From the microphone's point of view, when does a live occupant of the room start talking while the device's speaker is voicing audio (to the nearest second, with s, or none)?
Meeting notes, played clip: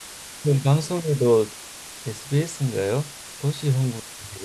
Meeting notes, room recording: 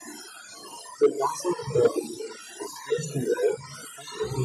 none